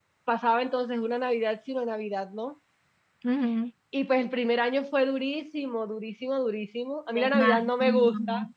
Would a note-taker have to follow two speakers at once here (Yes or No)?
Yes